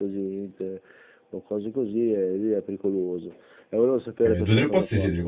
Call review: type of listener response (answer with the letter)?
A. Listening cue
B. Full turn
B